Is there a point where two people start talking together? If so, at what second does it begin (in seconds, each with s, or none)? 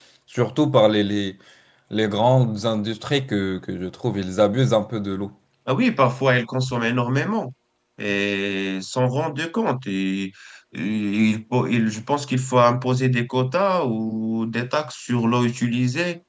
none